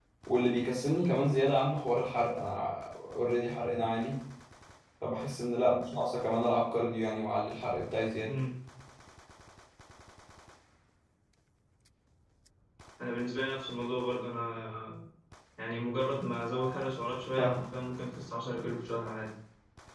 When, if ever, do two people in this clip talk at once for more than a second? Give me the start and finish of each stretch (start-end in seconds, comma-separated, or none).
none